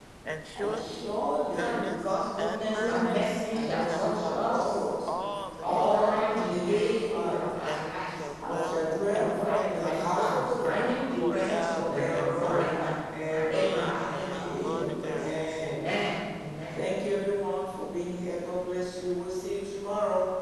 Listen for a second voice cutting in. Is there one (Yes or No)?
Yes